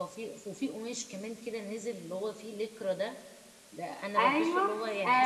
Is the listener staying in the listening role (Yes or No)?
No